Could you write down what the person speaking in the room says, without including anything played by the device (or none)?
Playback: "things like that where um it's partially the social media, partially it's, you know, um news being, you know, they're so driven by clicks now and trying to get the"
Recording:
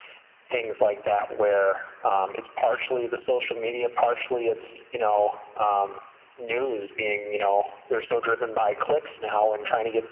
none